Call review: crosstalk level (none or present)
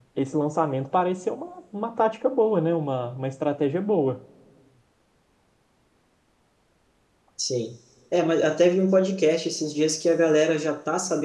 none